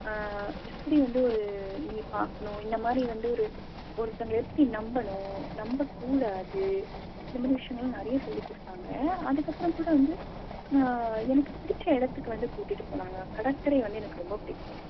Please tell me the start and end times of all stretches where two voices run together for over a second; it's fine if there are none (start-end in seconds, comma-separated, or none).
none